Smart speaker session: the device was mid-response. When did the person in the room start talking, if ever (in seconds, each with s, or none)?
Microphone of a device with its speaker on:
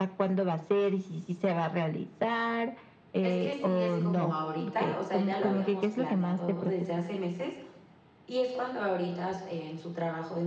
3.2 s